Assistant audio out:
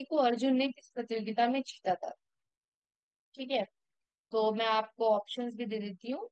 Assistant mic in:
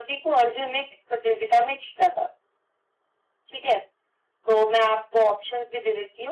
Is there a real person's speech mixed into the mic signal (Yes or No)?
No